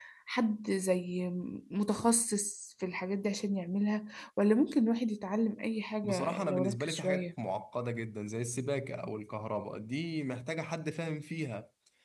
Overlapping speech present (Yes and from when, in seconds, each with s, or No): Yes, from 6.0 s